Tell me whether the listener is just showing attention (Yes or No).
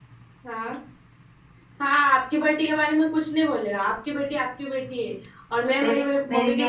No